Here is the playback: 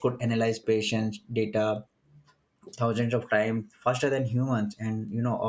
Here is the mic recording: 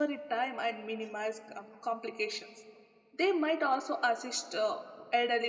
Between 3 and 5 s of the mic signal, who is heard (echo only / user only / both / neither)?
user only